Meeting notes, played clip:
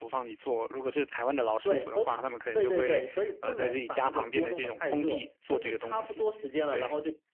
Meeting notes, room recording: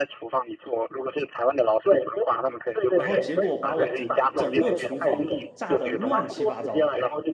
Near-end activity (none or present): present